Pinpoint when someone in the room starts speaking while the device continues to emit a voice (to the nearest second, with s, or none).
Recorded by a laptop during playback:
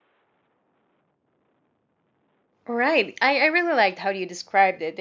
3 s